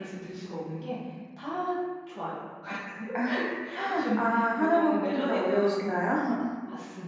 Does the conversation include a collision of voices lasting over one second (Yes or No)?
Yes